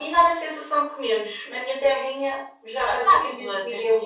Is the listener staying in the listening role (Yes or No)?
No